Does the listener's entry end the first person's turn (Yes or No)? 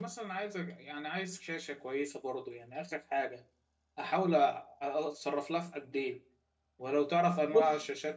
No